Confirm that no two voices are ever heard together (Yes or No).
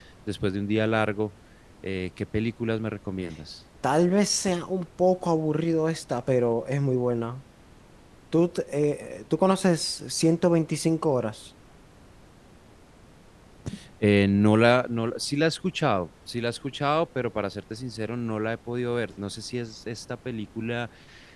Yes